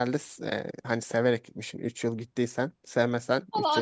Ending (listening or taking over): taking over